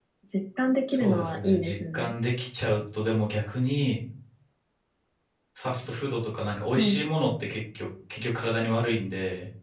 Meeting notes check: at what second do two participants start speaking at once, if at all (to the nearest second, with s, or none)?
1 s